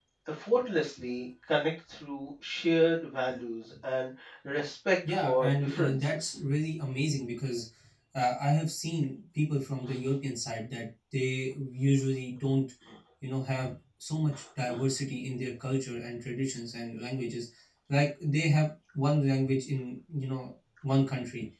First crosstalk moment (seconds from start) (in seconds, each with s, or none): 5.0 s